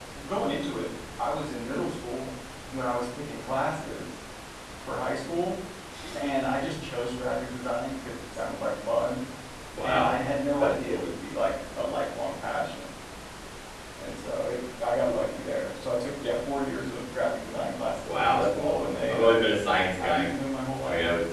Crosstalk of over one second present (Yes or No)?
Yes